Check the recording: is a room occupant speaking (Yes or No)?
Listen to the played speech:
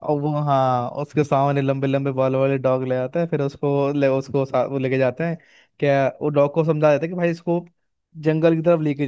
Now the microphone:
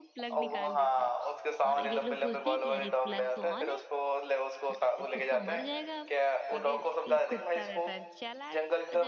Yes